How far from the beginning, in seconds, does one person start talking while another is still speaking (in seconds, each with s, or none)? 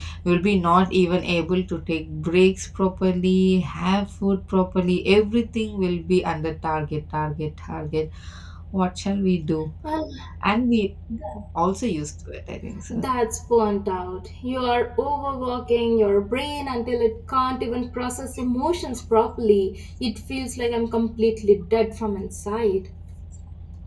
none